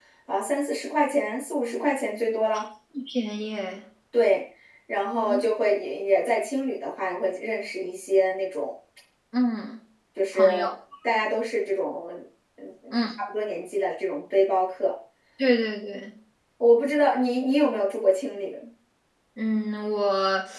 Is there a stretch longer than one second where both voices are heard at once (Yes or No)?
No